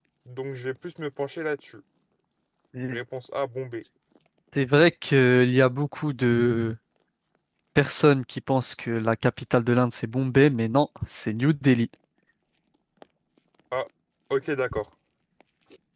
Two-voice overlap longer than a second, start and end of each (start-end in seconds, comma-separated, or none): none